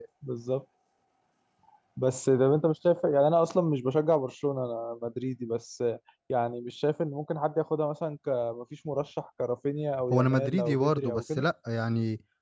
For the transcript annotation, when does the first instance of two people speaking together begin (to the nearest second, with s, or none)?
10 s